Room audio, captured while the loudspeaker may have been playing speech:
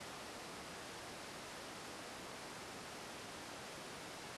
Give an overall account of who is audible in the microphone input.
neither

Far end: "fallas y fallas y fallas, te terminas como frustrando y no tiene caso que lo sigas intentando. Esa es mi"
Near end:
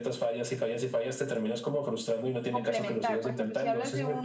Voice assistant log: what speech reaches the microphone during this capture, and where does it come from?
both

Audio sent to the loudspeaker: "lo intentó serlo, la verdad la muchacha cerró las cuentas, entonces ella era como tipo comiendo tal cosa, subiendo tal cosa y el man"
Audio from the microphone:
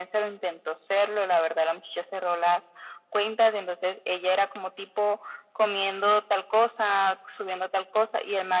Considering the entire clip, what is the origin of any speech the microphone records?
echo only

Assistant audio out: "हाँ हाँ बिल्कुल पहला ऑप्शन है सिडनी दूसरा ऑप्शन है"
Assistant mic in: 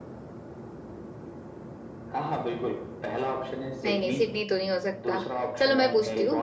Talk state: both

